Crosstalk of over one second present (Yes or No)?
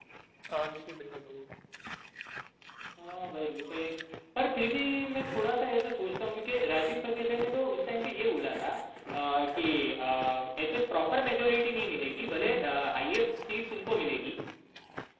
No